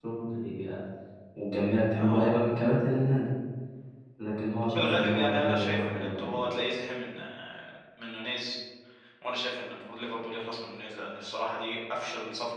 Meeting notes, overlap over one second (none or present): present